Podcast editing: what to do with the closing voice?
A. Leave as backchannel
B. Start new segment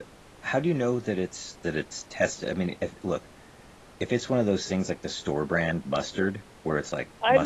B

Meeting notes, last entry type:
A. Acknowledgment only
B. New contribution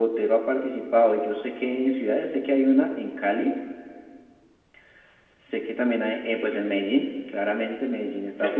B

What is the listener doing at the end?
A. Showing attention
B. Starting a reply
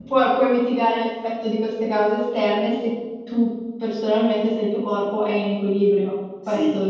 B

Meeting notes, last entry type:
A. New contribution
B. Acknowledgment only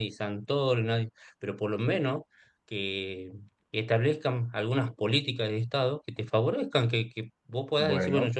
B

